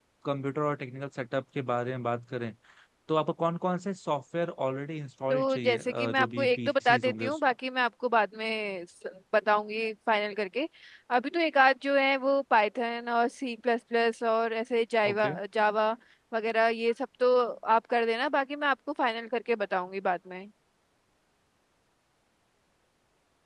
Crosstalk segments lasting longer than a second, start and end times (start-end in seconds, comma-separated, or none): 5.3-7.4